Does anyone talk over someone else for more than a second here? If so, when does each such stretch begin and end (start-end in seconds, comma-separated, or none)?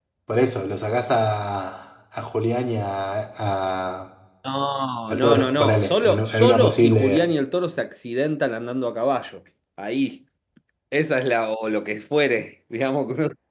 5.1-7.3